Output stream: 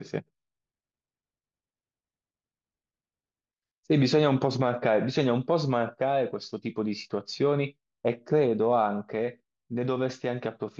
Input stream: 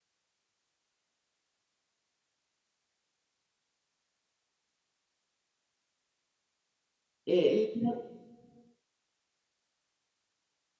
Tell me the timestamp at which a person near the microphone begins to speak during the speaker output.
7.2 s

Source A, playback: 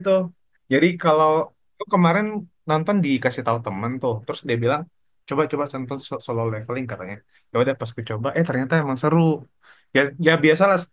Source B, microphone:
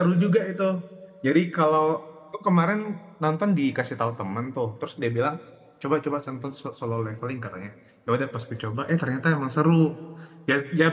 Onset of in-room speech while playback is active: none

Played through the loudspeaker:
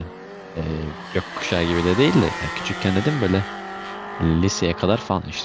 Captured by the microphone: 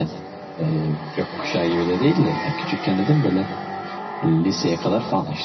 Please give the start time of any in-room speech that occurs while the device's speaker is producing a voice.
none

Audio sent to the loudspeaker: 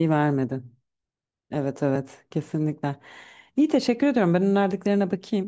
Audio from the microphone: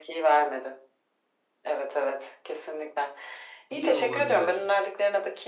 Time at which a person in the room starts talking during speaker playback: 3.7 s

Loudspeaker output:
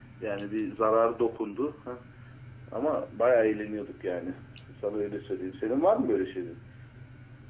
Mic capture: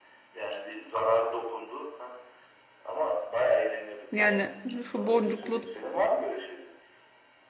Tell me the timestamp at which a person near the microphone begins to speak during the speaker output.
4.1 s

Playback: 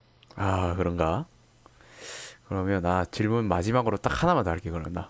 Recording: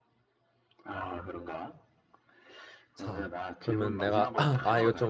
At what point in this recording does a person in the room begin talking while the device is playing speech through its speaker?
2.9 s

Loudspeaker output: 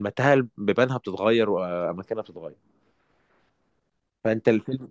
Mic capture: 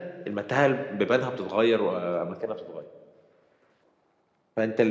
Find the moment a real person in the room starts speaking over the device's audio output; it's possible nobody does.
none

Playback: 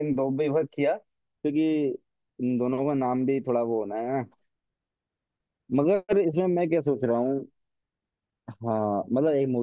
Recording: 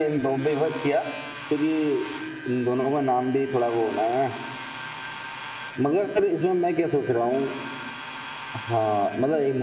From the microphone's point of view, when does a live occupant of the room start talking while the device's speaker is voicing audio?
none

